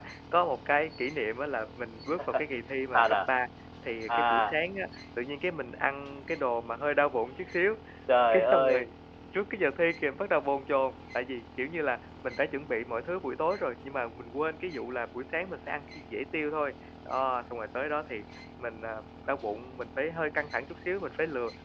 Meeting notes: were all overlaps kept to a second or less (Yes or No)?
Yes